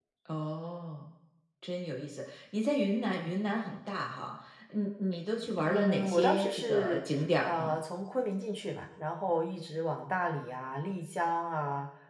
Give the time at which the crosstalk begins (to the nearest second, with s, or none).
6 s